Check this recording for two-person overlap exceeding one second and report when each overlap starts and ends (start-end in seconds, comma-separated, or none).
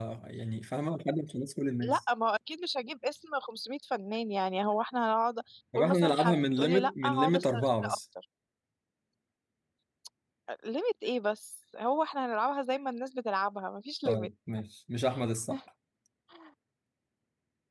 5.7-8.0